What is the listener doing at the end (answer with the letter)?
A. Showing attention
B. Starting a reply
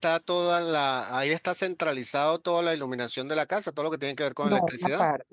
B